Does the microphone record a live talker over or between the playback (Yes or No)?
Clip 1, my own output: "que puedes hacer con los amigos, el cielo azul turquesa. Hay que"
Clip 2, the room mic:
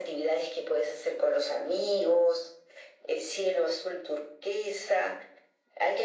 No